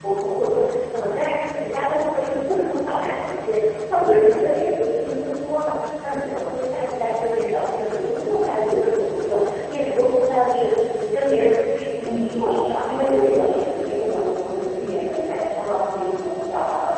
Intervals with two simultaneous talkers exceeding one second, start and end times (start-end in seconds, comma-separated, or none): 12.2-13.6